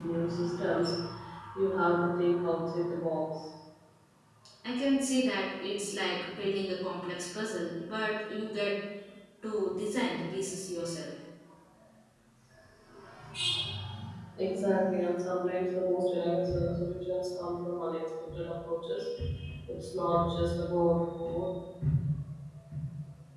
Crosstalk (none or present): none